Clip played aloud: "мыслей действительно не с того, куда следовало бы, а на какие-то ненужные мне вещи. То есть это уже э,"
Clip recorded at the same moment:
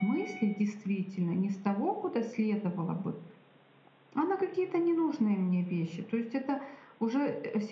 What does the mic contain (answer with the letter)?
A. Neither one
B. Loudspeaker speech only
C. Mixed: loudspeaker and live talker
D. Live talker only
B